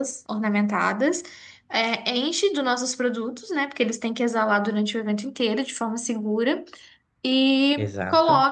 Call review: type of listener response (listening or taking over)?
listening